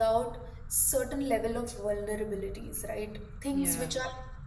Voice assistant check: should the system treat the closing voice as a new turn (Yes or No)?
No